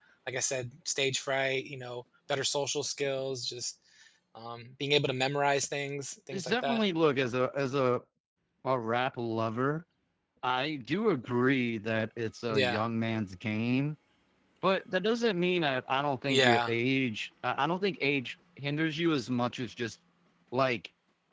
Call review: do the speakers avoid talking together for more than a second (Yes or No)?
Yes